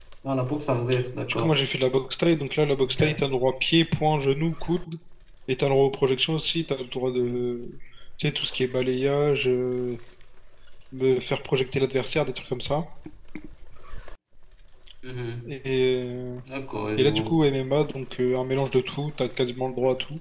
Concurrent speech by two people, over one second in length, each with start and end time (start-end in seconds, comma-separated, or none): none